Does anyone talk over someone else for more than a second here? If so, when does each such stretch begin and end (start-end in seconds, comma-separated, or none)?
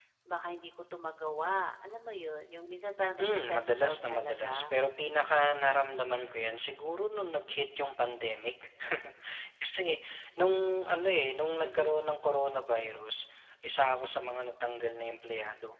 3.2-4.7